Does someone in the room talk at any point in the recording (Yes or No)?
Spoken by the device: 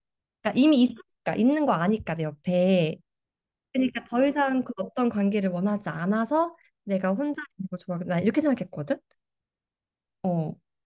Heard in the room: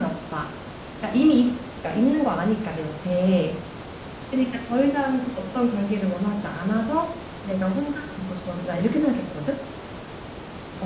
No